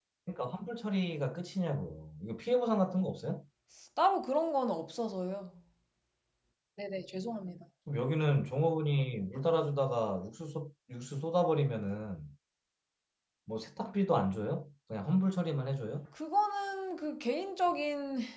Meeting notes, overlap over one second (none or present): none